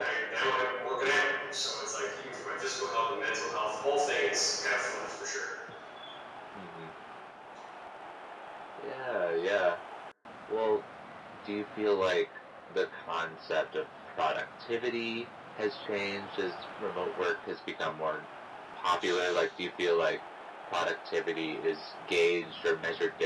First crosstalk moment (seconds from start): none

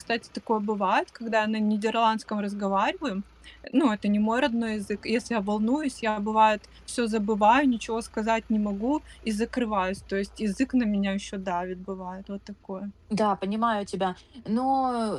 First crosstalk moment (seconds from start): none

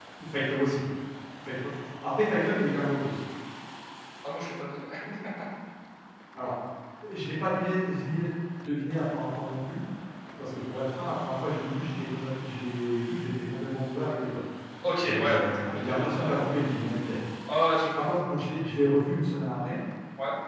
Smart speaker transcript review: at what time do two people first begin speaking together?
15.0 s

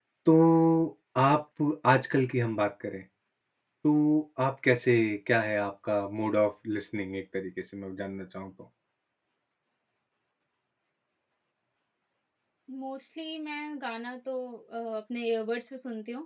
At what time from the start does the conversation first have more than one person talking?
none

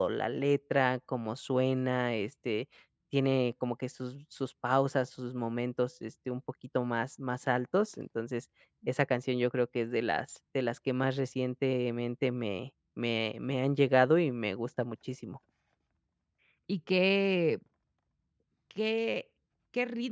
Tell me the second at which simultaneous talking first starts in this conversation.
none

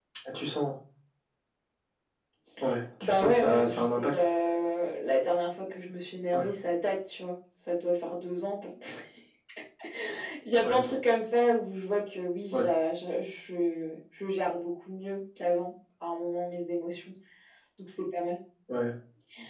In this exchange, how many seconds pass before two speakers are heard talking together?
3.0 s

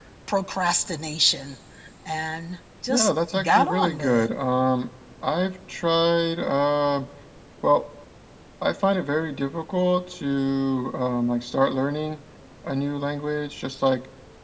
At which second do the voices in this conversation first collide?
2.9 s

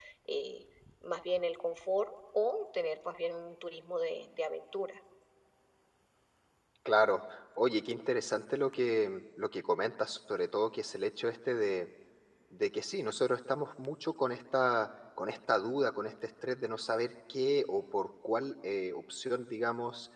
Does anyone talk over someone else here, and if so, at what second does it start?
none

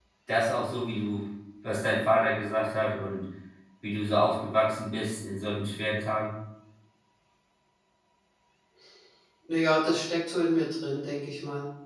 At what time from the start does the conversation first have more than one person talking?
none

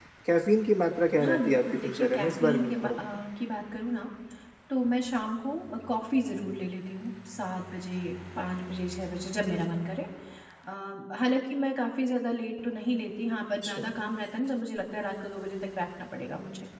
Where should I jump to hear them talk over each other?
1.2 s

